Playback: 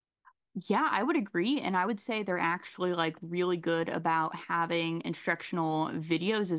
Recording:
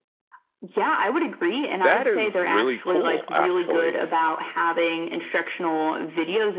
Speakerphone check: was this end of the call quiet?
No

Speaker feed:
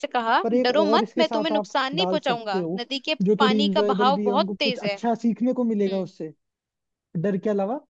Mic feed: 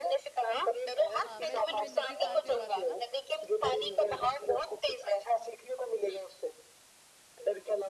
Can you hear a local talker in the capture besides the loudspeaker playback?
Yes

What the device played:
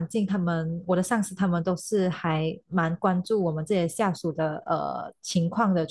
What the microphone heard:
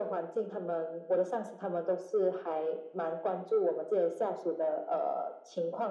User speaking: No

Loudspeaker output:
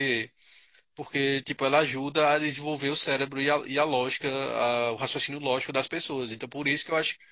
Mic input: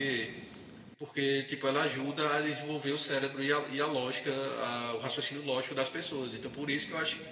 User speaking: No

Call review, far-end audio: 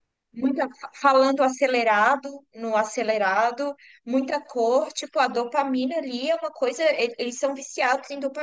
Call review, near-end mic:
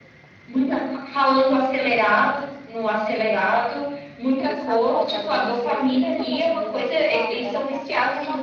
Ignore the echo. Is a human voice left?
Yes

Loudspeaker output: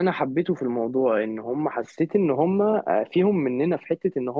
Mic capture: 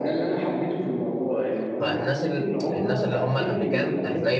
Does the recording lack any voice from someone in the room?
No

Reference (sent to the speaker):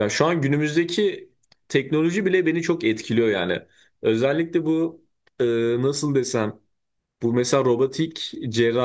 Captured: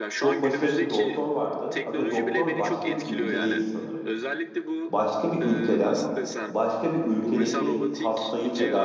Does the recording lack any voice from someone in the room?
No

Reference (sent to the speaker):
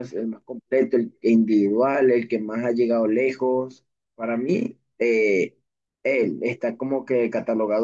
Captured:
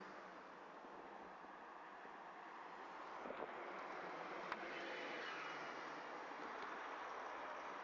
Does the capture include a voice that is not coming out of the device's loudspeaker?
No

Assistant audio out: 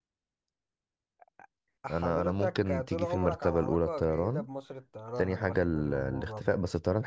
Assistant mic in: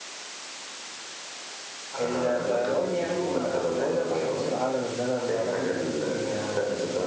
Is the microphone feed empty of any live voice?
No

